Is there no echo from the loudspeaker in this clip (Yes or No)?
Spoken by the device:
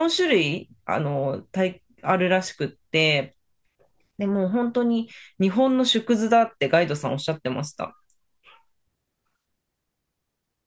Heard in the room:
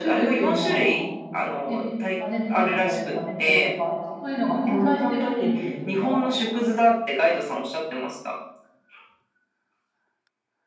No